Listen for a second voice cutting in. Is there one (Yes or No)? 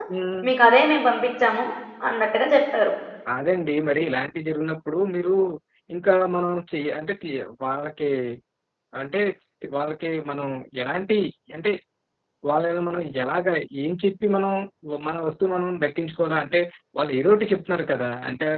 No